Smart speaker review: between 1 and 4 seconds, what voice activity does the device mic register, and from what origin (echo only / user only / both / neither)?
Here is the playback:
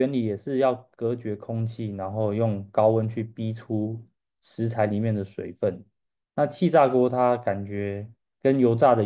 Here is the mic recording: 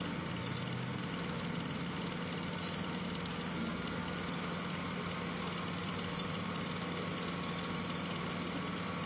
neither